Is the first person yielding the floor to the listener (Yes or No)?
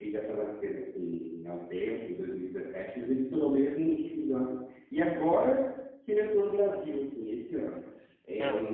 No